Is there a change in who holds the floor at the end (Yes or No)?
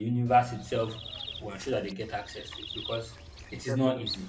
No